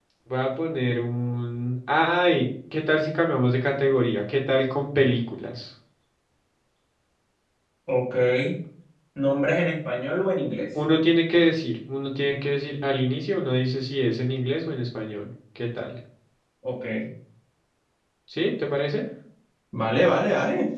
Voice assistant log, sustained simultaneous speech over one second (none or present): none